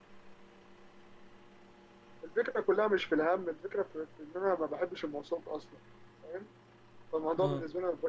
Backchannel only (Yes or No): Yes